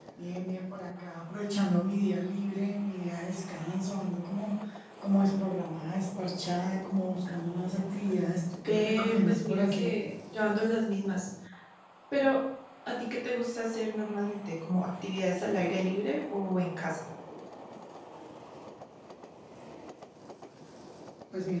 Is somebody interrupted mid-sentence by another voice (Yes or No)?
Yes